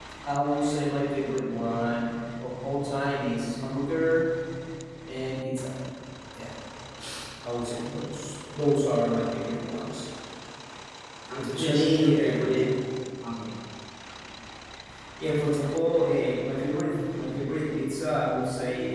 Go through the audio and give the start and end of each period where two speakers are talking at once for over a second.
11.4-12.7

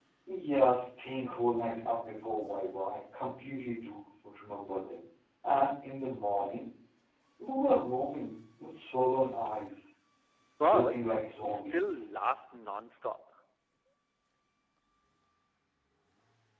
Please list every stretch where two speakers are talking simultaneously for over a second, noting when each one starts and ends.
10.6-12.1

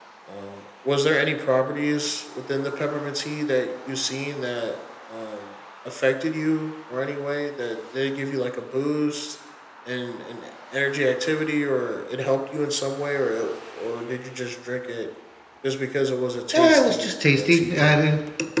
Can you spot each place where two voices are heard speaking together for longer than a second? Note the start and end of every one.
16.5-18.0

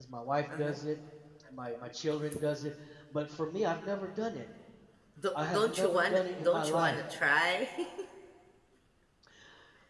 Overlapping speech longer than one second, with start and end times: 5.5-7.0

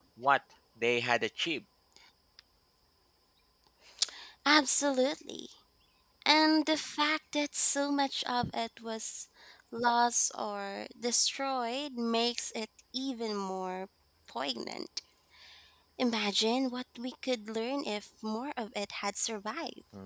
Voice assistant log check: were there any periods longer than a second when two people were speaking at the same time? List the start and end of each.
none

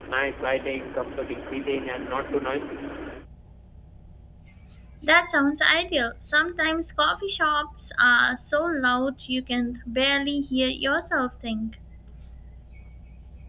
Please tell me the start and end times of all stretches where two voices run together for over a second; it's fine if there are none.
none

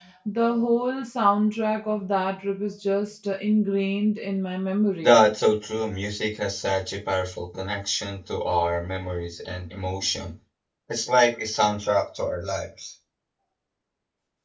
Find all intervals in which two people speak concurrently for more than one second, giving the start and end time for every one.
none

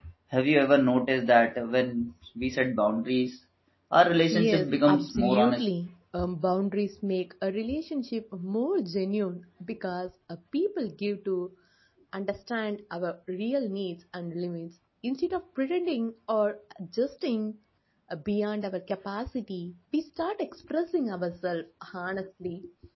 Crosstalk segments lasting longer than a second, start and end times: 4.3-5.7

